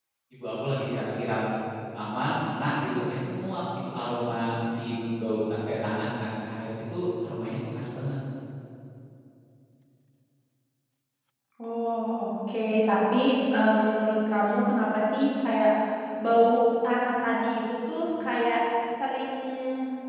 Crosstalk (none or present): none